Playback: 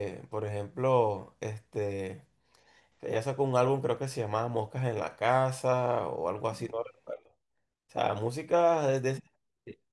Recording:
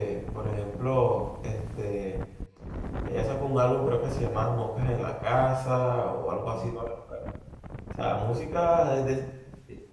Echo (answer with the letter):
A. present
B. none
A